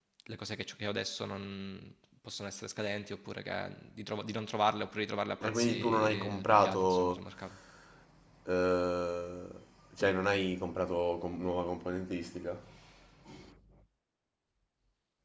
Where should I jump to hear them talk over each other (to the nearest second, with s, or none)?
5 s